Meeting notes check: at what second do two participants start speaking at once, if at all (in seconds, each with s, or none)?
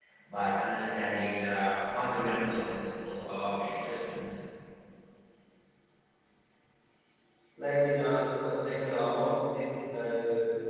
none